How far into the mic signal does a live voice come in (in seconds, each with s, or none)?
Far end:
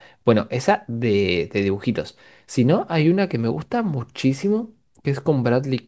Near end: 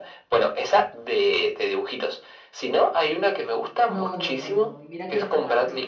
3.9 s